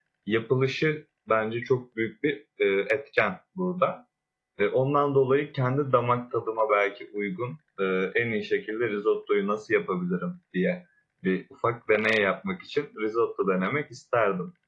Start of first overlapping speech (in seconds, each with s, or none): none